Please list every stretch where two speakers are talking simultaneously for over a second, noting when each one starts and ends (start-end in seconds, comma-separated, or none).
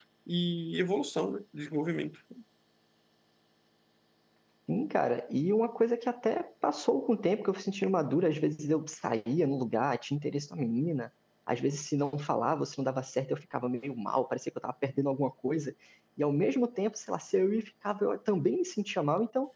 none